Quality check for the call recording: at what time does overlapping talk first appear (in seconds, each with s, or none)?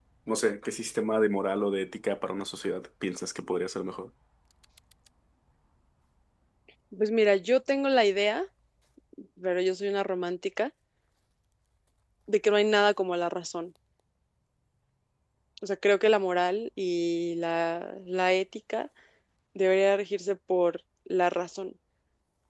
none